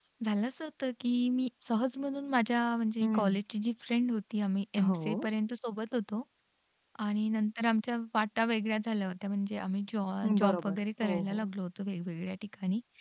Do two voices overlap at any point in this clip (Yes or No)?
Yes